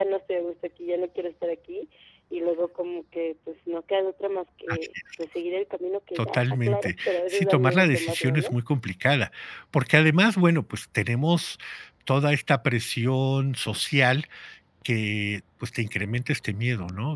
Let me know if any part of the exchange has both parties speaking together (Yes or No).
Yes